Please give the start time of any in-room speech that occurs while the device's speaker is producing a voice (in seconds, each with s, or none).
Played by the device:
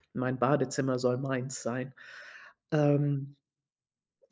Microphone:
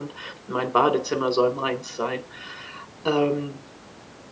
none